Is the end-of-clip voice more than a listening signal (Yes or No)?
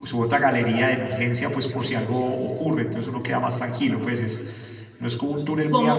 No